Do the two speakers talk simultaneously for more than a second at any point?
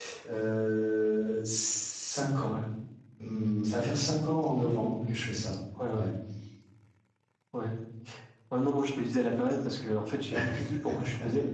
No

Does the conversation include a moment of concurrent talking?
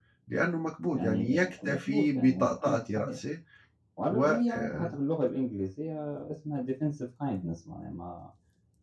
Yes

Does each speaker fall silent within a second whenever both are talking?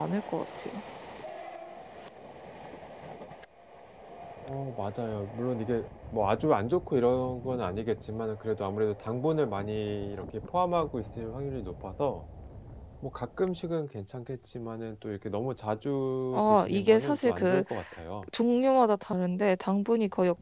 No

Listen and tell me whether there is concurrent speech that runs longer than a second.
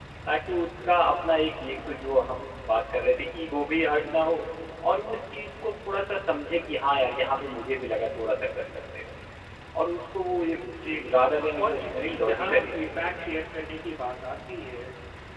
Yes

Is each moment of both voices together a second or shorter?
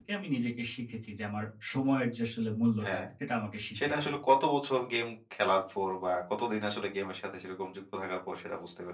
Yes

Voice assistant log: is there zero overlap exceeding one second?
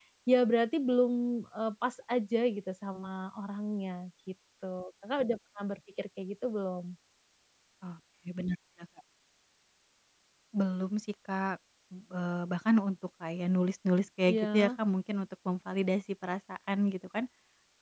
Yes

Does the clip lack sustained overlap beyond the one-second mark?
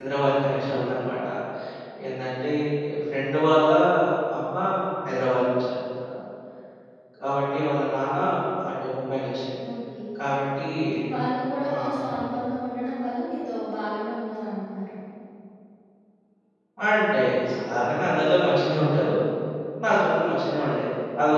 Yes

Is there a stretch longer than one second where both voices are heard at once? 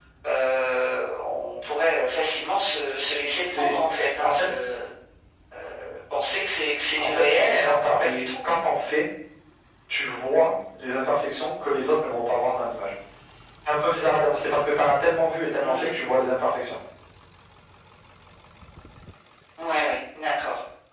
Yes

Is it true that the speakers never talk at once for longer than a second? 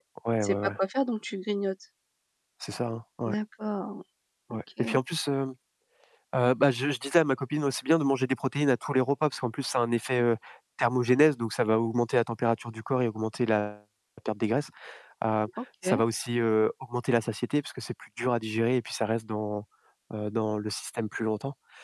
Yes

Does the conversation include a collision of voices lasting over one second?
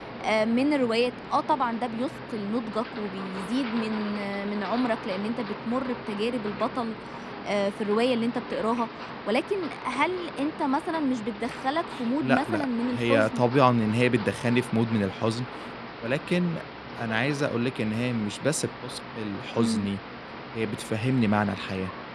Yes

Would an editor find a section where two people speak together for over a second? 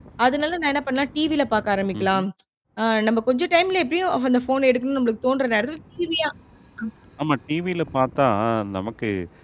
No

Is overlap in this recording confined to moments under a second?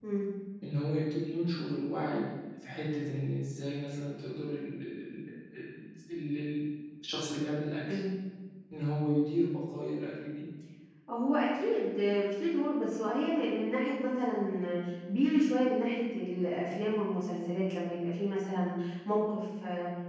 Yes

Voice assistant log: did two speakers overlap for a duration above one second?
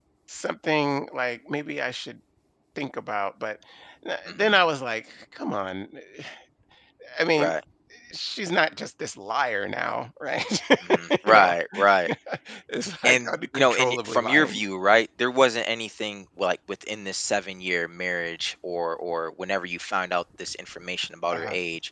Yes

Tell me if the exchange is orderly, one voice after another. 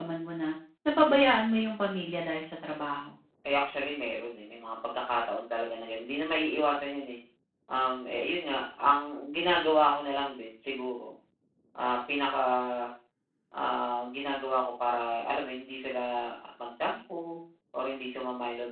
Yes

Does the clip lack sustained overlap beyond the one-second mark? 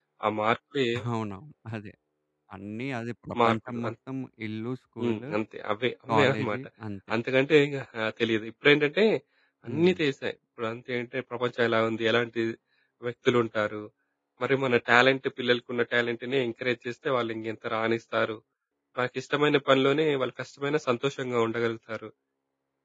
Yes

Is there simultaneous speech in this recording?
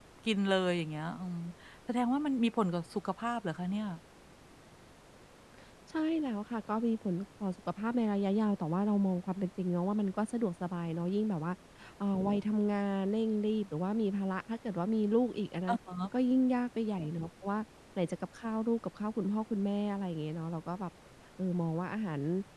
No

